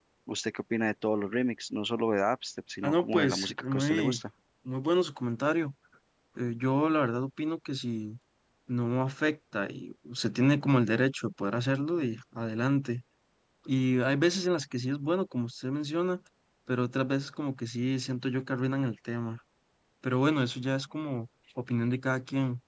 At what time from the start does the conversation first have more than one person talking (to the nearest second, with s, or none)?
3 s